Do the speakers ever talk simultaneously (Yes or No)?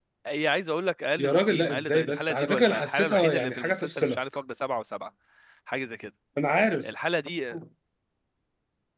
Yes